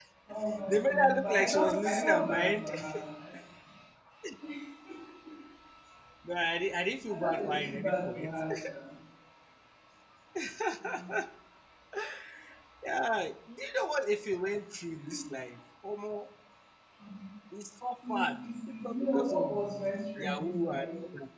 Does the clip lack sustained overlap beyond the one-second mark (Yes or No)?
No